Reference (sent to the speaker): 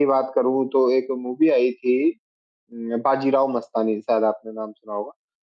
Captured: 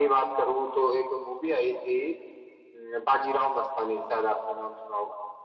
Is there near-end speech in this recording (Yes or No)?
No